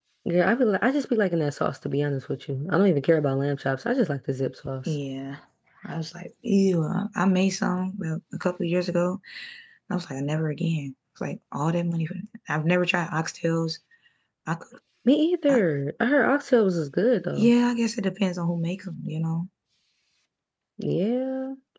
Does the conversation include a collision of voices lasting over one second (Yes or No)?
No